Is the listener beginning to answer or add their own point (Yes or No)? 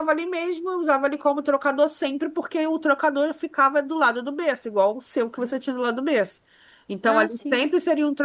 No